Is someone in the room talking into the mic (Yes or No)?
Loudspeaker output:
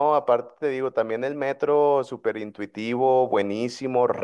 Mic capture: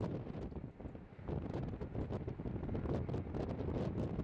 No